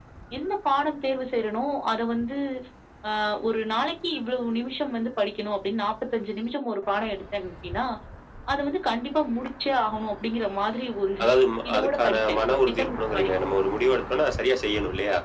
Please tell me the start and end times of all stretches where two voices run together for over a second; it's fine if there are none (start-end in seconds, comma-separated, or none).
11.7-13.3